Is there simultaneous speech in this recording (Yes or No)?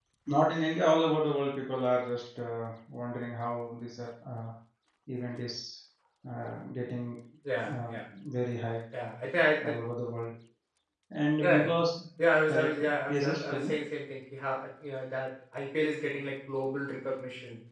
Yes